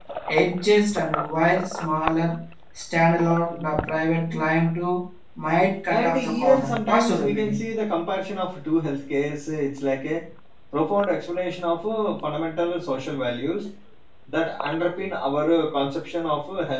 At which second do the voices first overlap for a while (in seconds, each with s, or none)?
5.9 s